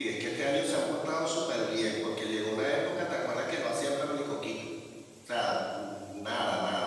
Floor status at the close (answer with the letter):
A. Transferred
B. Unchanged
B